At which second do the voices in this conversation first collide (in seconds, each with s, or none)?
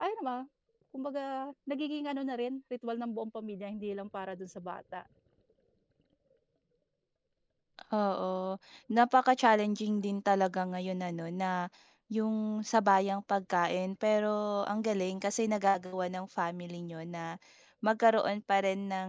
none